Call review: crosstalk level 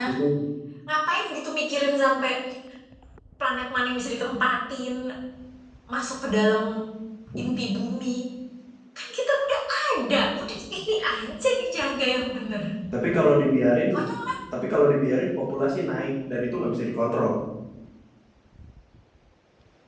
none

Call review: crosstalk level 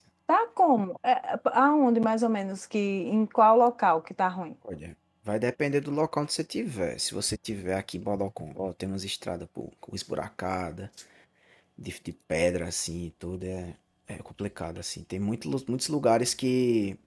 none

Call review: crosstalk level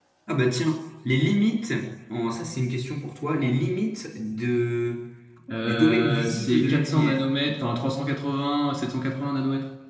present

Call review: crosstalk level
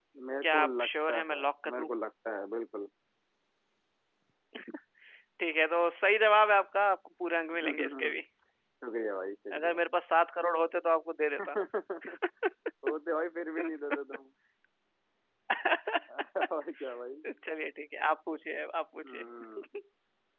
present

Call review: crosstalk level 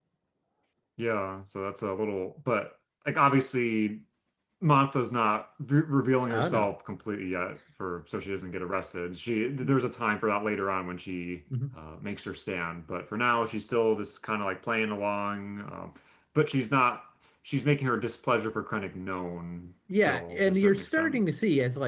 present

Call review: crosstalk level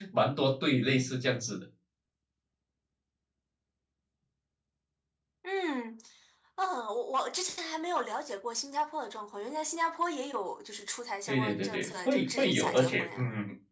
present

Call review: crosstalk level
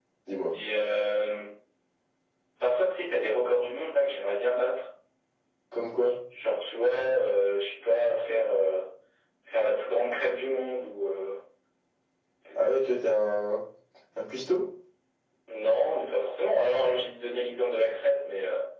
none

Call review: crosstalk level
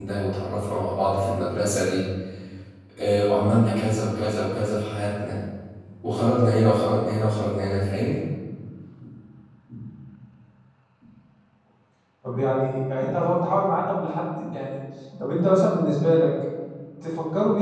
none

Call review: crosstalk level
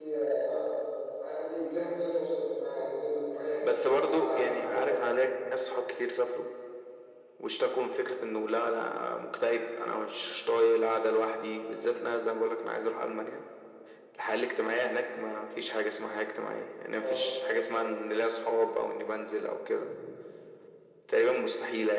present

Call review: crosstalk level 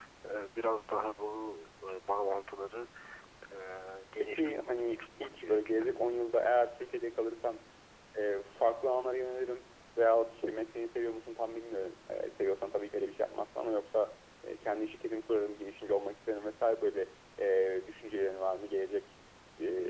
present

